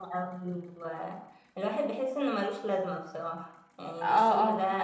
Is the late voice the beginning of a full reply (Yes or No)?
Yes